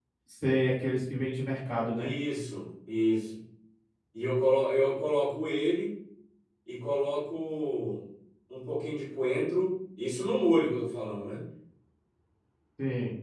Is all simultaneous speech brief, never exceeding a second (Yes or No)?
Yes